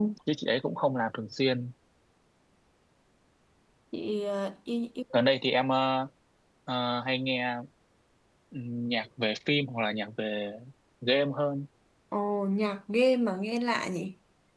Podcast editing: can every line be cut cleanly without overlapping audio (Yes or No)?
Yes